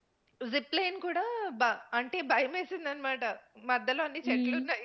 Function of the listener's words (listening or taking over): listening